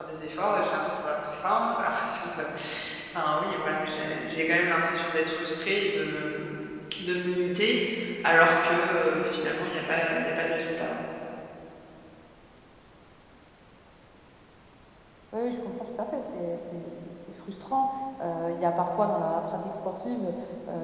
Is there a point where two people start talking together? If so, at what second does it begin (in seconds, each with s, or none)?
none